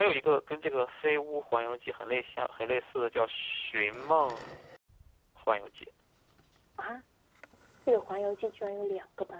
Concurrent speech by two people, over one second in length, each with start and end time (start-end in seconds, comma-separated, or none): none